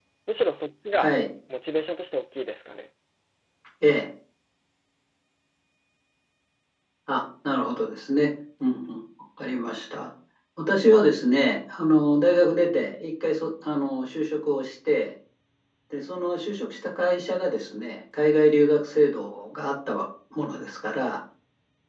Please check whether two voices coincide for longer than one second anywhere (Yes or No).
No